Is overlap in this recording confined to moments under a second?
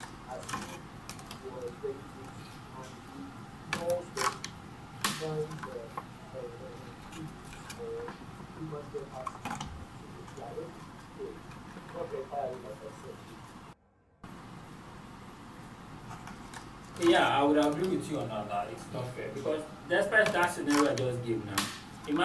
Yes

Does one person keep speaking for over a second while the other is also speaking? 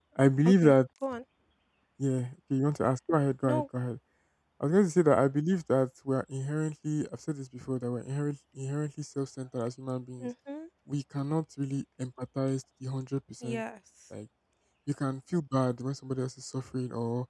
No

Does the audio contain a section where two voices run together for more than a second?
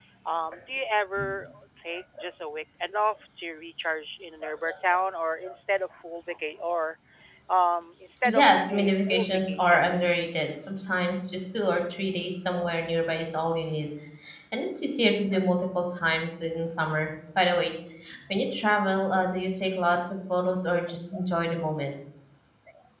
Yes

